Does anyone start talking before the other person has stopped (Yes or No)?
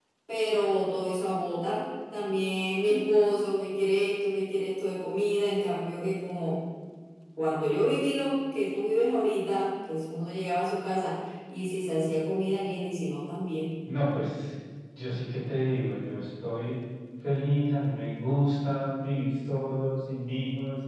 No